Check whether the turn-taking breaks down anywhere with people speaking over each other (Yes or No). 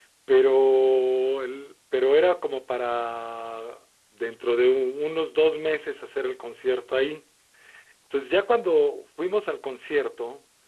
No